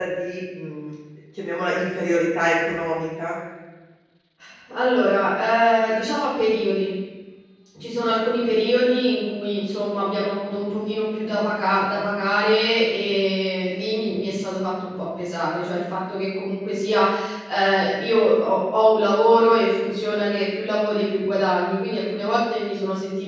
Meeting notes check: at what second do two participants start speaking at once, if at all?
none

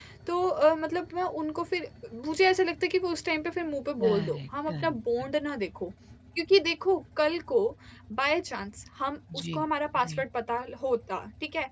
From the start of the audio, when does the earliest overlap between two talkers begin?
4.0 s

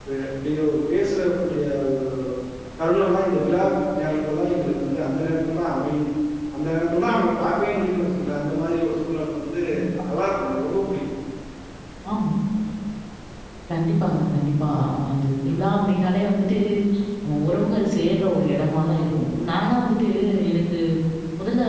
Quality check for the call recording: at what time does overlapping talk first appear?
none

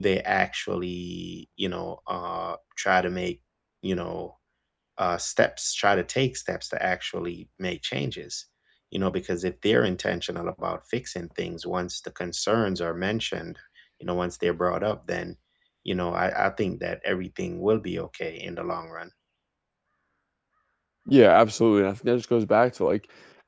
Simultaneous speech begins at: none

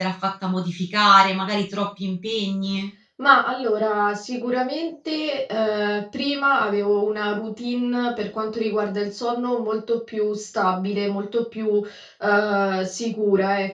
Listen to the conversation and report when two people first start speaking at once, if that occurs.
none

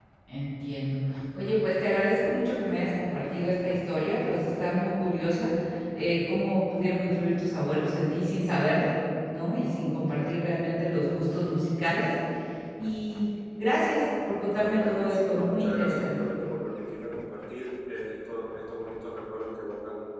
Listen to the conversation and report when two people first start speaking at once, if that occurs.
14.6 s

